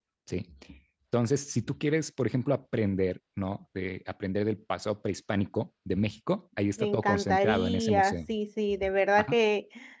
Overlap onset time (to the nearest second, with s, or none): 7 s